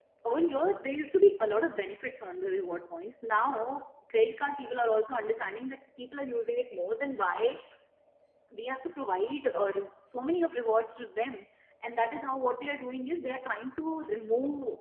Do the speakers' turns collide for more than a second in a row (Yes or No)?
No